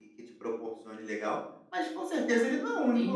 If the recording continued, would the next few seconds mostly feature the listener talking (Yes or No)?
Yes